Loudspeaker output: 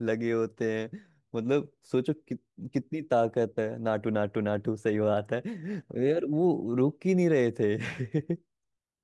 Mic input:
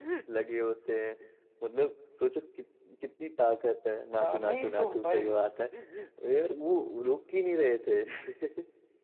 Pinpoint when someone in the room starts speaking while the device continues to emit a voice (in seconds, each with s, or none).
4.2 s